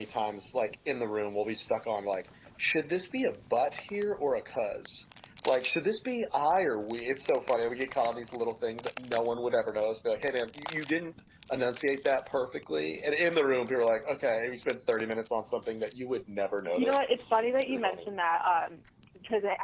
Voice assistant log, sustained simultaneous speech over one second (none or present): none